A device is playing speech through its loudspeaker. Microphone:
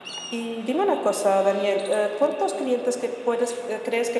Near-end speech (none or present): none